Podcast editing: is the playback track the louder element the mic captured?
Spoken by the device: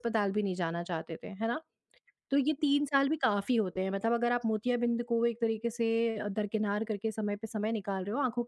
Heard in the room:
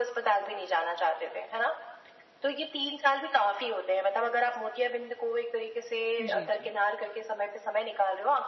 Yes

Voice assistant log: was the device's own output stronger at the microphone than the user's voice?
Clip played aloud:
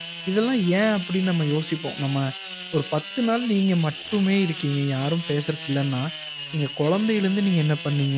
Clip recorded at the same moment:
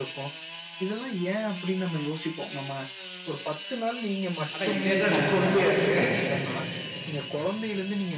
No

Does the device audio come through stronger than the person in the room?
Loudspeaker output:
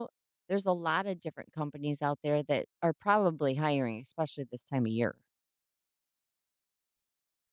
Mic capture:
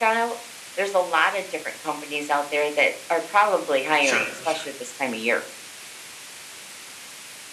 Yes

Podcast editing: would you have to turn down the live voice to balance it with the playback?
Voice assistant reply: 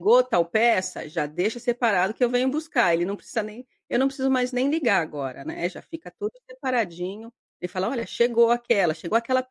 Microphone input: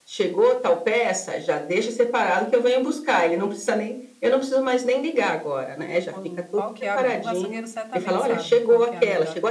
No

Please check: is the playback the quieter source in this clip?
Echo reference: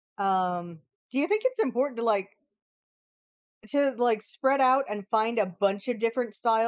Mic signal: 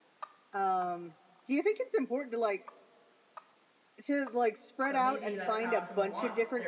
No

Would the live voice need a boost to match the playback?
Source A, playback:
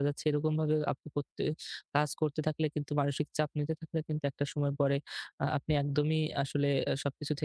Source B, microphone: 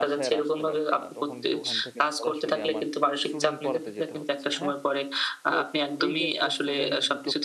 Yes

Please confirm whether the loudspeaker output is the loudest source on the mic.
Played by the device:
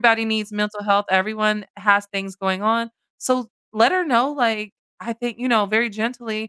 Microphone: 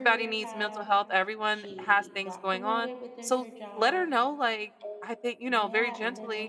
Yes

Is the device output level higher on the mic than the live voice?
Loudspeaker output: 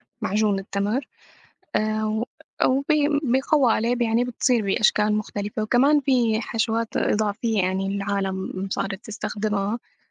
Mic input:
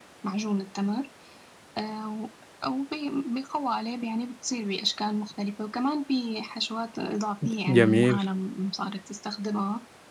No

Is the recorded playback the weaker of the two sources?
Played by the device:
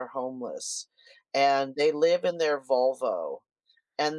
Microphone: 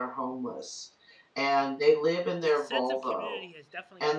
No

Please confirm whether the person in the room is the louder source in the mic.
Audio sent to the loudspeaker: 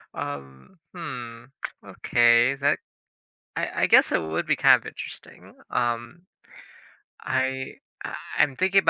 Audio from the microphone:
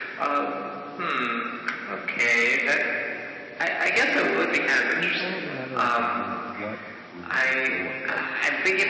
No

